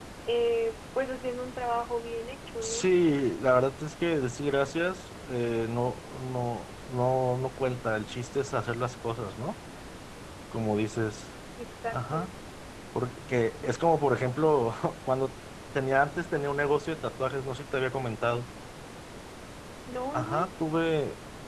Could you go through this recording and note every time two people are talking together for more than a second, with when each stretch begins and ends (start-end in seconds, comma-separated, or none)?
none